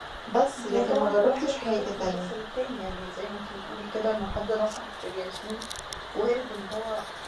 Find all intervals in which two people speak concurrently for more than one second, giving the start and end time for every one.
0.6-2.4

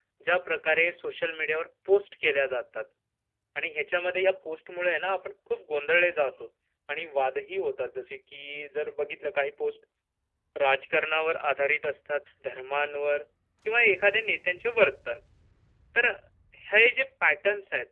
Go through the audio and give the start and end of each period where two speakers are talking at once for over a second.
none

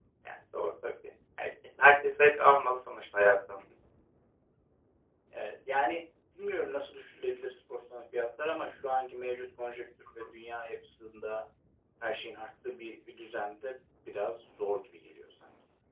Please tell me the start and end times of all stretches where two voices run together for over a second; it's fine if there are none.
none

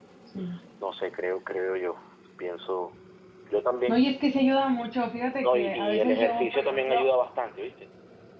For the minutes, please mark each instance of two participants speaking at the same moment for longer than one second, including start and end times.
5.4-7.0

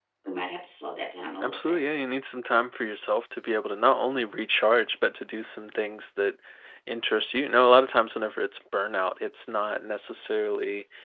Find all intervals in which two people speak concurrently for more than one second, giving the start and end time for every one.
none

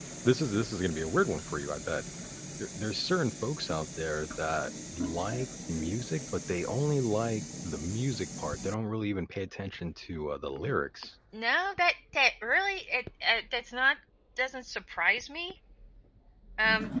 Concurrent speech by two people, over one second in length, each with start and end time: none

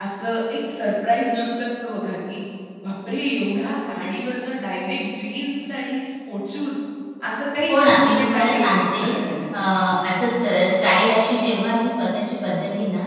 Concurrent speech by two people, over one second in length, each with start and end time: 7.7-9.1

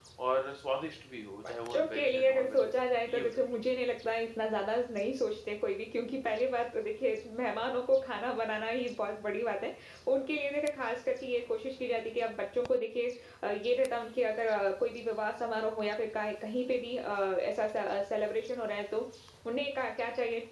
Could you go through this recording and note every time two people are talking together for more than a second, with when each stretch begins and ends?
1.5-2.7

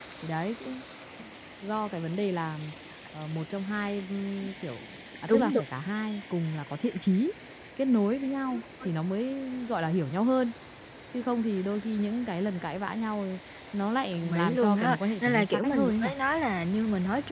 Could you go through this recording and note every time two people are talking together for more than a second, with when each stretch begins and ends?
14.1-16.1

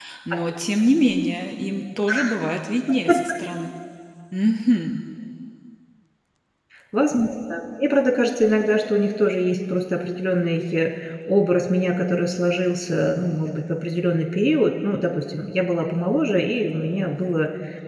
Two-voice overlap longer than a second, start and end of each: none

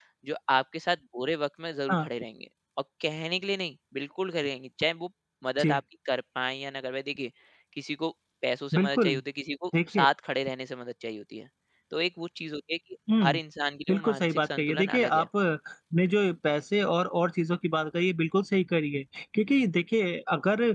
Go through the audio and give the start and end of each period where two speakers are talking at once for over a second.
13.9-15.3

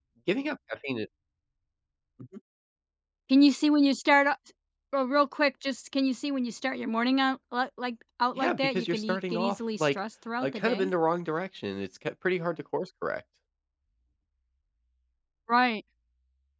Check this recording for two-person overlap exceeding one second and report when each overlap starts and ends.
8.4-10.0

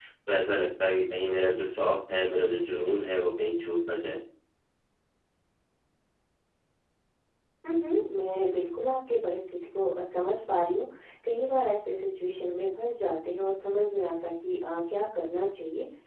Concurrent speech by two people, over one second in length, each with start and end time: none

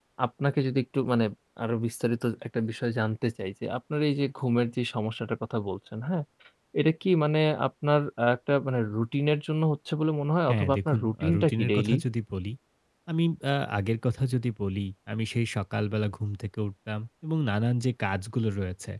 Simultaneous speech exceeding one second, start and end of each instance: 10.5-12.0

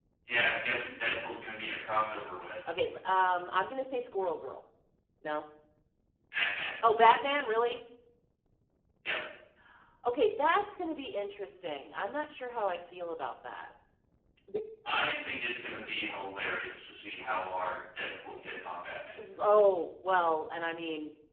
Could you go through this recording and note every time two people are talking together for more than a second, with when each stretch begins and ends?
none

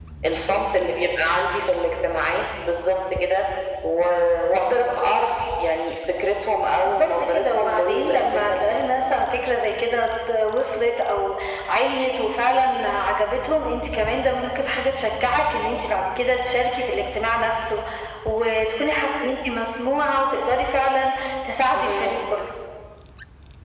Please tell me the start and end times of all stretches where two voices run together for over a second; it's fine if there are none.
6.8-8.8

